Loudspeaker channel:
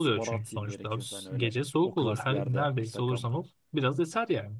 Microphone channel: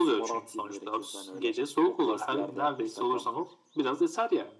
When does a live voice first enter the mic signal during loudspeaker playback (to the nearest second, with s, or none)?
none